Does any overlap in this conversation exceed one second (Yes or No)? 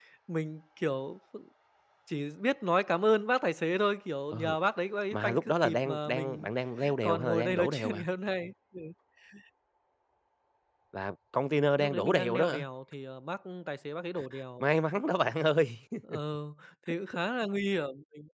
Yes